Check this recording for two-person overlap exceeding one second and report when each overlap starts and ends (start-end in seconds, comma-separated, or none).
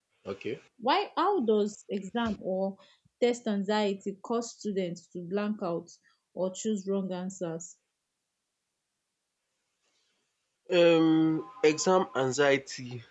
none